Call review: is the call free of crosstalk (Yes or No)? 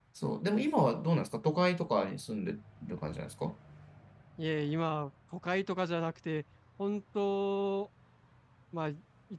Yes